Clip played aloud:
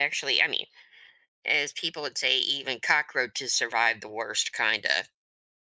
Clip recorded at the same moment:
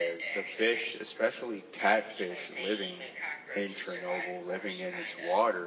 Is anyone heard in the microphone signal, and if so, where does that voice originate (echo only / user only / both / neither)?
both